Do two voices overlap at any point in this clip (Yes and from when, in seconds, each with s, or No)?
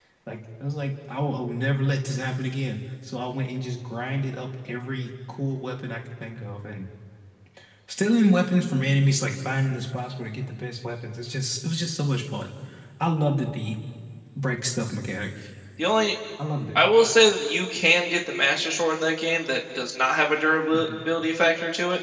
No